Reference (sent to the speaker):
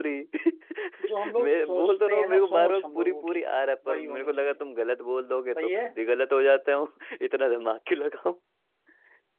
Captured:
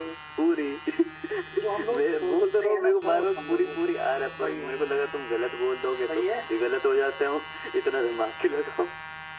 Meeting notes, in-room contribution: none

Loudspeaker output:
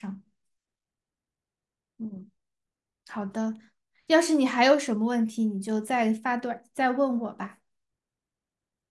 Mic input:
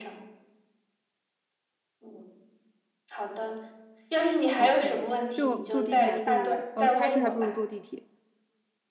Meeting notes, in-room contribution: present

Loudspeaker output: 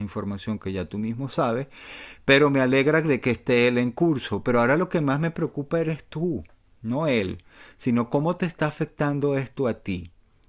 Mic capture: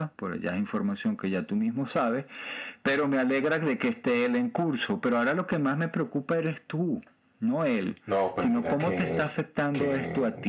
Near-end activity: present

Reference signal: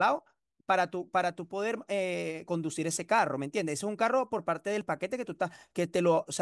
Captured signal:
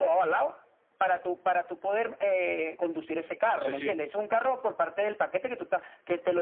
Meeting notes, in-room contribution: present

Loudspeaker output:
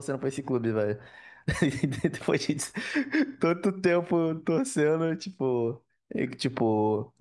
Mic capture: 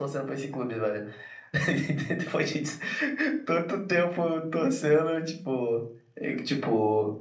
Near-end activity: none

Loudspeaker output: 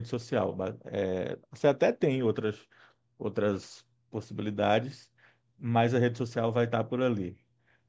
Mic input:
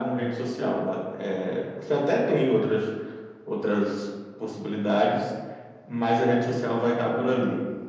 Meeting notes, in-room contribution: none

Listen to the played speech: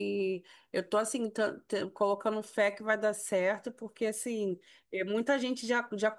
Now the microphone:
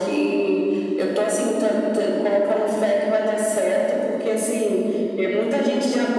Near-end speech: none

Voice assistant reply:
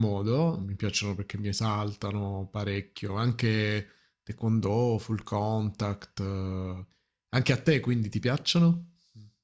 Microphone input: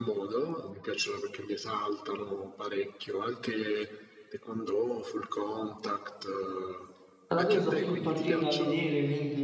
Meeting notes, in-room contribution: present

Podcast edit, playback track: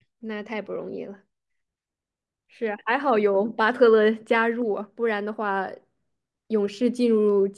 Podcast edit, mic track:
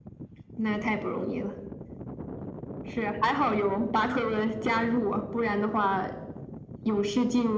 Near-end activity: none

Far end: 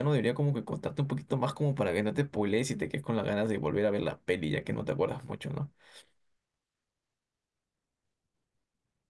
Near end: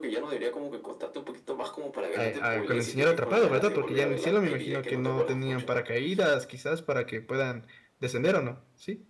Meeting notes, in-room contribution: present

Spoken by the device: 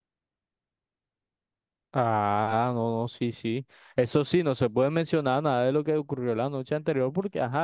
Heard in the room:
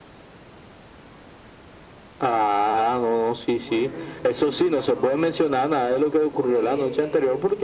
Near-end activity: present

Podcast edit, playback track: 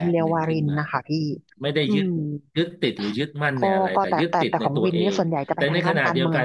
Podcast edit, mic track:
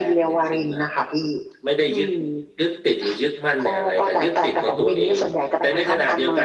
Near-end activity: none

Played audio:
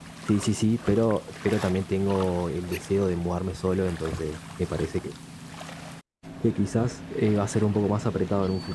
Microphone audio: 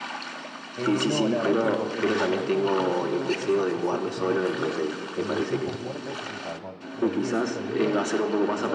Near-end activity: present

